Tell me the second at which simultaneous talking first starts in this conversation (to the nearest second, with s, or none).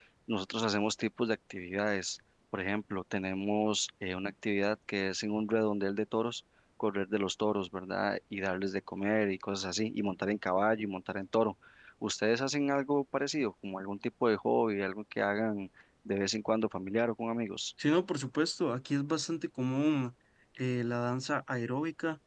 none